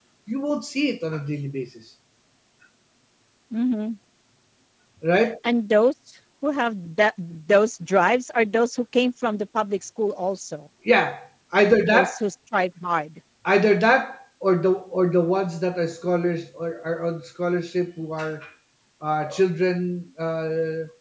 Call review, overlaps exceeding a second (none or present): none